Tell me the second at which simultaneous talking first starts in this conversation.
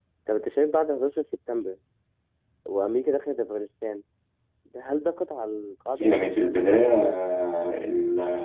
6.0 s

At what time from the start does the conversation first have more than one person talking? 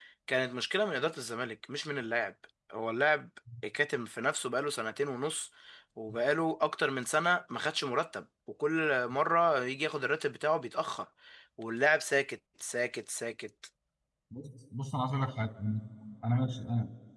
none

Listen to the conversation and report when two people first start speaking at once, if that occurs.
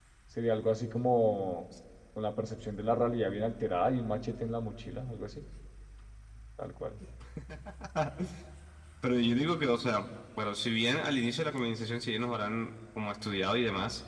none

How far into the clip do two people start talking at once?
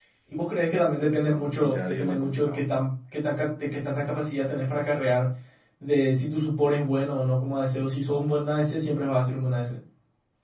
1.2 s

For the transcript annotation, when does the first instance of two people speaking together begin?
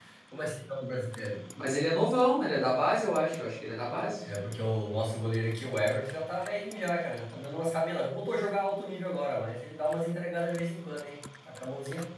none

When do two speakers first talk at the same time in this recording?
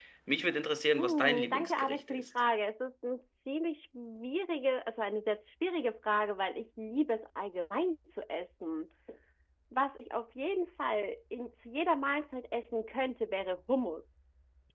1.0 s

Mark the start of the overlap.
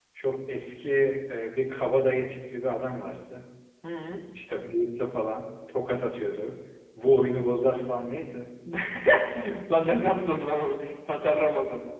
none

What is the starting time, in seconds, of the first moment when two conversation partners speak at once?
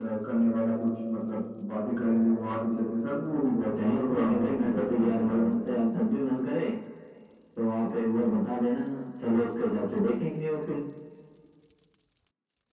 3.8 s

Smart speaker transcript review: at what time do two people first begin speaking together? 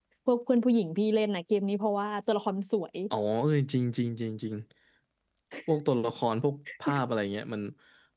none

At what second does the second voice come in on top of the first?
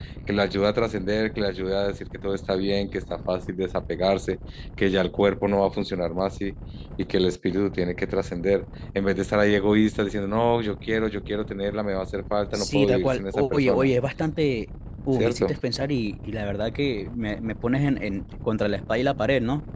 12.5 s

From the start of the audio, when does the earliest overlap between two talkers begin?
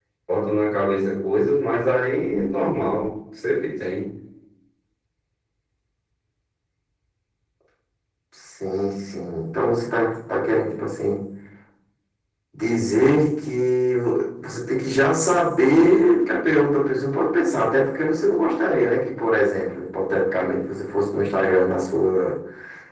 none

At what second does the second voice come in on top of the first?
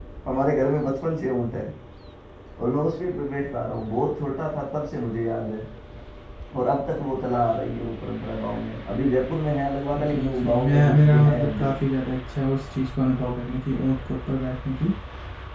10.0 s

